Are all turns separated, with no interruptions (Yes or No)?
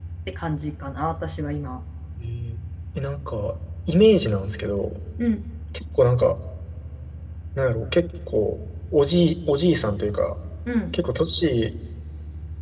Yes